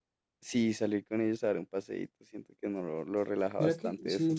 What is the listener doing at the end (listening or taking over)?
taking over